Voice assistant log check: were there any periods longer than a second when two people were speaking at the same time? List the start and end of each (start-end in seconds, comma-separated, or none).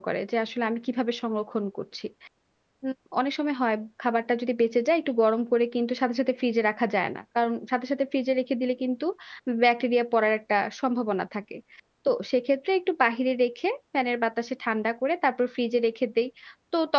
none